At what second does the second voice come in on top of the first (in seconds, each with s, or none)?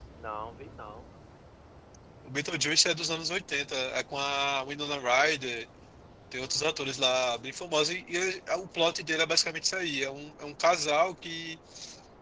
6.3 s